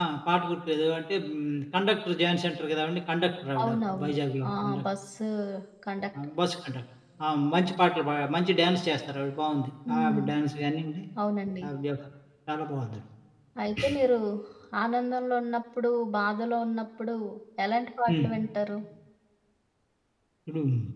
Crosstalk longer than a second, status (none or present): none